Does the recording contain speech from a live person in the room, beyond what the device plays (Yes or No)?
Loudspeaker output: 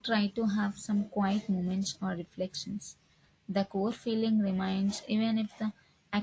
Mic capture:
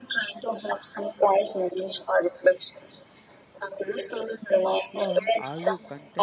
Yes